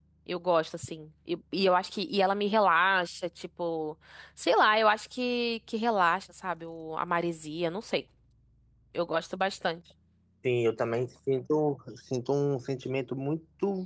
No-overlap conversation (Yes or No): Yes